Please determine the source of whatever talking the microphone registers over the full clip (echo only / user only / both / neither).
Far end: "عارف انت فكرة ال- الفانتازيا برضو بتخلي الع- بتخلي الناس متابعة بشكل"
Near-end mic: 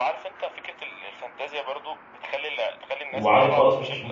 both